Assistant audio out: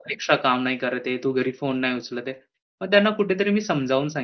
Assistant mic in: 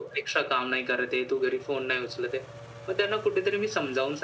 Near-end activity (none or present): none